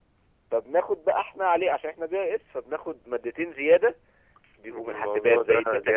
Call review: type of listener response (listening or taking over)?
taking over